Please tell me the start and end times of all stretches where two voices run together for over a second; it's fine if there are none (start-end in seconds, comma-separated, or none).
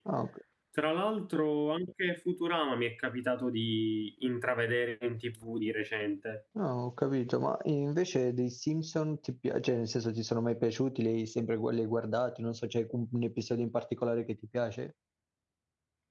none